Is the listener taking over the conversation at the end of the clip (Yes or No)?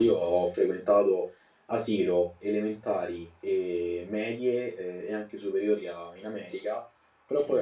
No